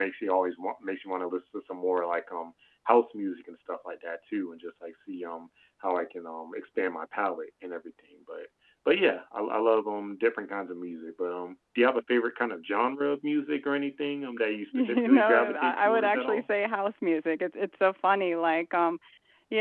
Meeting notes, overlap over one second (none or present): present